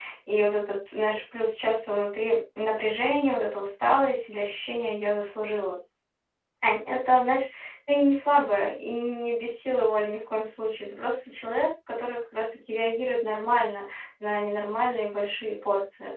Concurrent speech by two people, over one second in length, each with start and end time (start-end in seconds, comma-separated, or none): none